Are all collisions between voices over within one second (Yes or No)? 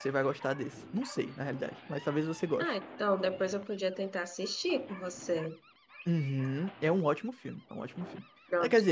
Yes